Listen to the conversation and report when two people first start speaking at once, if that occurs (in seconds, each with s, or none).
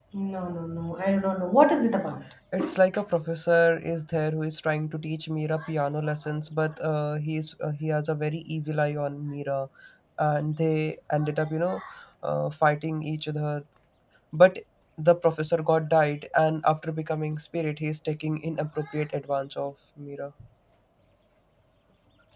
none